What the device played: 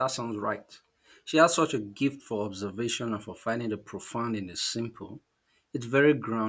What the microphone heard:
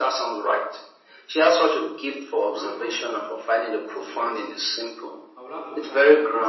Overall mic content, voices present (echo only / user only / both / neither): both